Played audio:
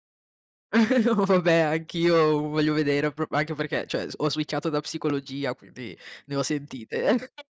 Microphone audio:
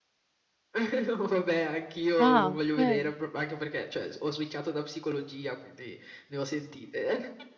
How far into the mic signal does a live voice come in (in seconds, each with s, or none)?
2.2 s